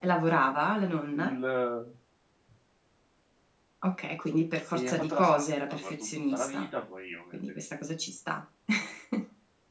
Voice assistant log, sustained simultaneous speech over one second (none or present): present